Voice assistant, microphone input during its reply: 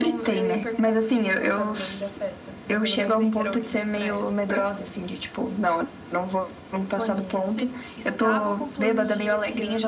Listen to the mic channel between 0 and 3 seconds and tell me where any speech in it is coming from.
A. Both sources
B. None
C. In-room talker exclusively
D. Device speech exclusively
A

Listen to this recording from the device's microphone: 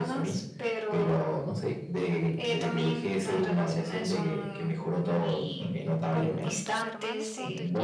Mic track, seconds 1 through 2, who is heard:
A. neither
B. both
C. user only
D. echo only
D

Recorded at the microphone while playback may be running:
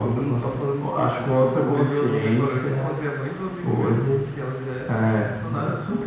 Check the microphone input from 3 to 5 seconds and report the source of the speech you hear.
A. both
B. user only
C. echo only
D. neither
C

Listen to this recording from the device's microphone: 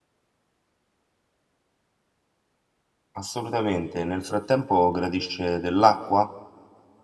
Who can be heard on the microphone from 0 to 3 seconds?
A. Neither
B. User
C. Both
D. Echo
A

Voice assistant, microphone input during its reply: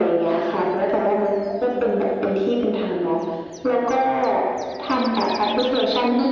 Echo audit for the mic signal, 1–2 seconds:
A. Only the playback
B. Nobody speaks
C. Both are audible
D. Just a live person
A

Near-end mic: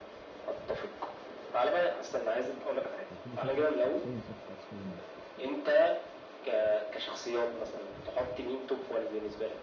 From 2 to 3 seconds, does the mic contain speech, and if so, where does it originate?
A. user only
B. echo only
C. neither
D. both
B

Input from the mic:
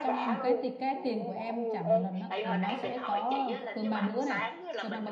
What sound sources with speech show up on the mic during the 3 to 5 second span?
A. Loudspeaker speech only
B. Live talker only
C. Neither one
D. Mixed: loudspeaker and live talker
D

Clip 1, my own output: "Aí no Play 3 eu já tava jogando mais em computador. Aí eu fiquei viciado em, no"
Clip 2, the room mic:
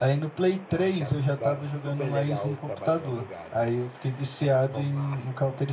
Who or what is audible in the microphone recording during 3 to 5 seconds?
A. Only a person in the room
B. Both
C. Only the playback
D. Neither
B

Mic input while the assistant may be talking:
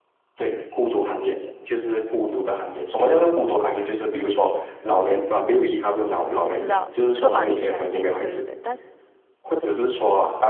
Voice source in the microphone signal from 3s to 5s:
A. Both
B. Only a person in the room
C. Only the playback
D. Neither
C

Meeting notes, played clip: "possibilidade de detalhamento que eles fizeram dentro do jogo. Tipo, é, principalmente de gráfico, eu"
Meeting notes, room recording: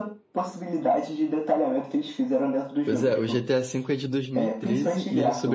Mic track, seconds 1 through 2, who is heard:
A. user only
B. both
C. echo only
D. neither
C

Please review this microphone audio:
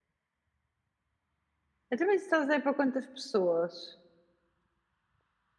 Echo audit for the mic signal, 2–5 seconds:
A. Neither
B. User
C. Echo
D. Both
B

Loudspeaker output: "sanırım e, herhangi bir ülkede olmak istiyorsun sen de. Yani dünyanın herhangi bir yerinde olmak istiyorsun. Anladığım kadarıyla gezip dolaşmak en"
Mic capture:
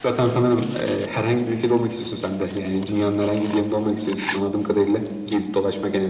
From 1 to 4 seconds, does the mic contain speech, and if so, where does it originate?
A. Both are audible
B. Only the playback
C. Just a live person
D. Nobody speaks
B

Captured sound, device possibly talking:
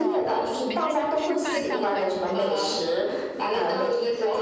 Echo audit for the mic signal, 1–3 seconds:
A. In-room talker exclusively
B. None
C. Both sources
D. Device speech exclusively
C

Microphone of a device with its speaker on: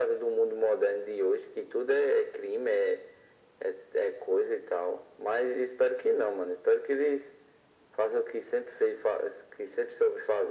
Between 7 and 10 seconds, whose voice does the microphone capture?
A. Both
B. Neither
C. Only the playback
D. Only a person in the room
C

